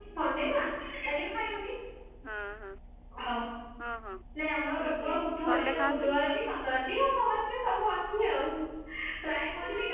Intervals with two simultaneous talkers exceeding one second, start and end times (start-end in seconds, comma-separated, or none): 4.8-6.2